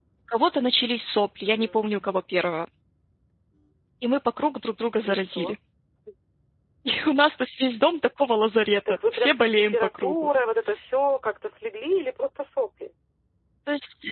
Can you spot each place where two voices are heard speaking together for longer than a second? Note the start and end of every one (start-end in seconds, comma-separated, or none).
8.9-10.1